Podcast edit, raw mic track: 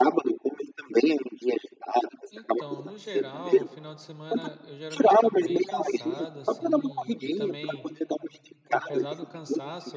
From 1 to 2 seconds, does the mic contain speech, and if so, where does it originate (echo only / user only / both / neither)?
echo only